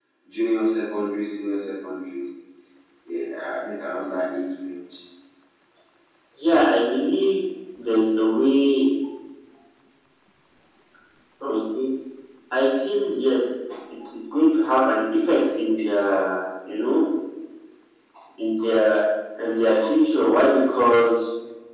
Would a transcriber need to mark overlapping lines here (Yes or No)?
No